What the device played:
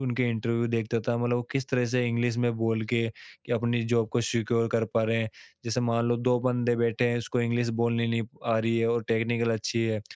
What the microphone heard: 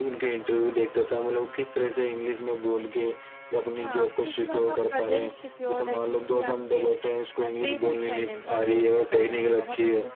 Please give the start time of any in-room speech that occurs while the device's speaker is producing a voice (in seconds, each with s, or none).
3.8 s